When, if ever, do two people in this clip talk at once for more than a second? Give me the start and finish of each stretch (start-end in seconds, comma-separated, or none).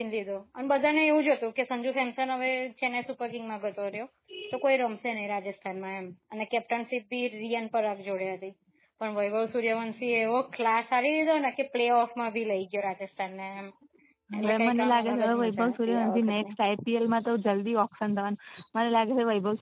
14.4-16.3